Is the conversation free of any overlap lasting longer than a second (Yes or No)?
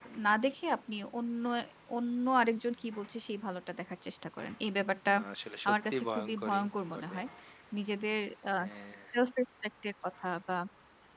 No